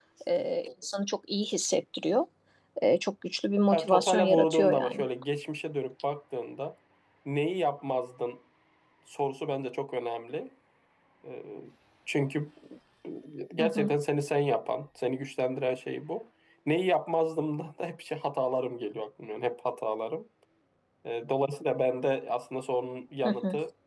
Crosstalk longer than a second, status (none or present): present